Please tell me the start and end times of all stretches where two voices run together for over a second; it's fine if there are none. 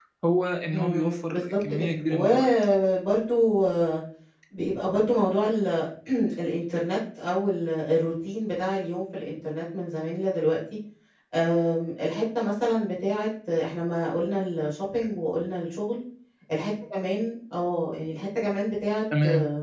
0.7-2.5

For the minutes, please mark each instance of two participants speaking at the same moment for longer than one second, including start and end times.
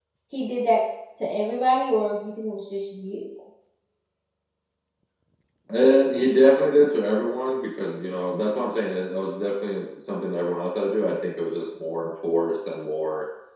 none

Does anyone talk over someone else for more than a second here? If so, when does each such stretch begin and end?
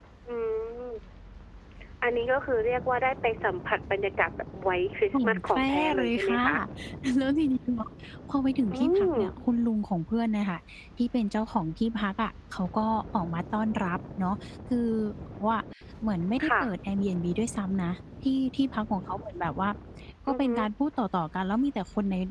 5.1-6.4

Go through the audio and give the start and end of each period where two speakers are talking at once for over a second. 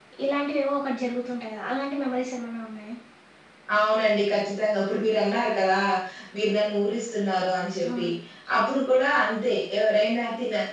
none

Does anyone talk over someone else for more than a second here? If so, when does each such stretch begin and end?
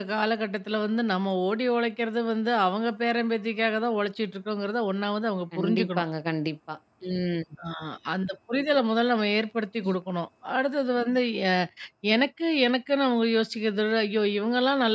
none

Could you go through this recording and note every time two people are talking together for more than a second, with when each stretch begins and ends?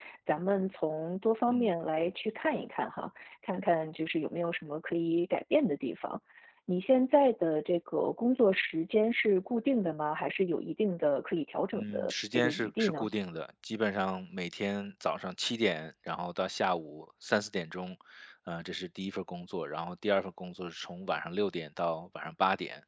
11.7-13.1

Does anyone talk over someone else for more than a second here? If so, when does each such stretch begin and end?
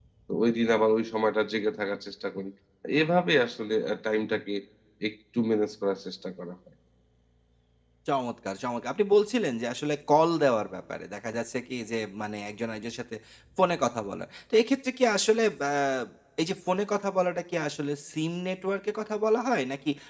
none

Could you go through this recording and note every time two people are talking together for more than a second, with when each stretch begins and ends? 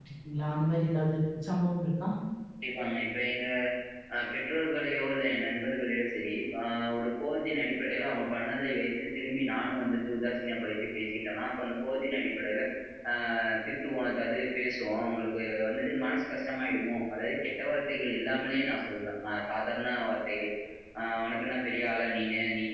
none

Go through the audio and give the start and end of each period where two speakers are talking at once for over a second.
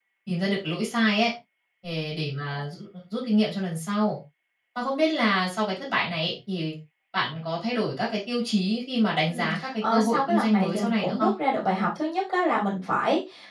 9.3-11.3

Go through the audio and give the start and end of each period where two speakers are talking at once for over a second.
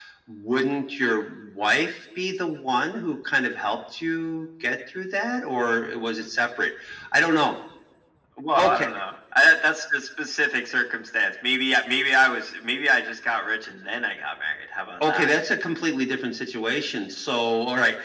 none

